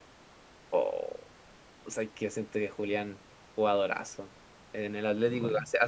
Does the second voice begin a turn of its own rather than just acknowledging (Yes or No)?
No